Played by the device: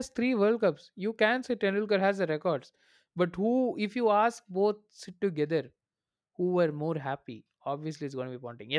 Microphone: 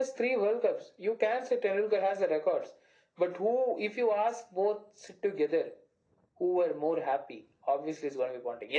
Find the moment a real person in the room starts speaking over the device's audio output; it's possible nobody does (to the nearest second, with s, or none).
none